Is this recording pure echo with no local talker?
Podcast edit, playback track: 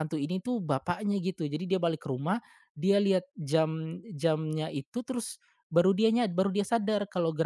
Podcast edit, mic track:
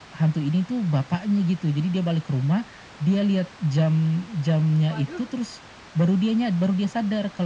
No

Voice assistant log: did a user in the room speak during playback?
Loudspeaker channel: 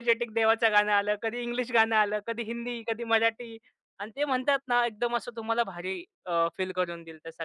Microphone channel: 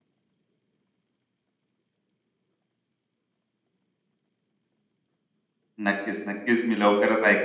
Yes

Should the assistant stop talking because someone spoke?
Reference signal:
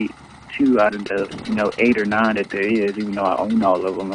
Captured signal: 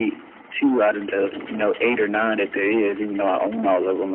No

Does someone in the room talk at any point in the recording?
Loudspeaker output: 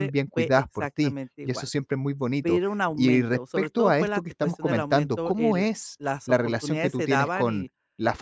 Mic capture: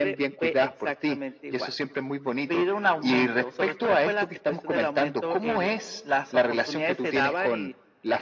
No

